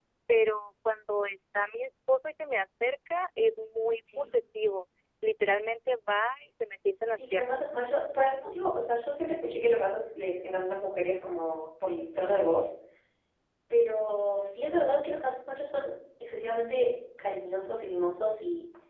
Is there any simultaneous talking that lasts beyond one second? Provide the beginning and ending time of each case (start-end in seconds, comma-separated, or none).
none